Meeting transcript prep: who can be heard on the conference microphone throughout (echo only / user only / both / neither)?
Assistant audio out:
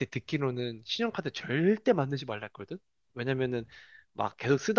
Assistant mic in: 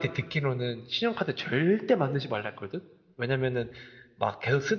echo only